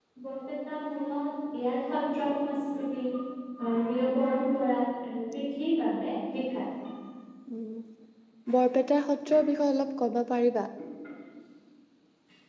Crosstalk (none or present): none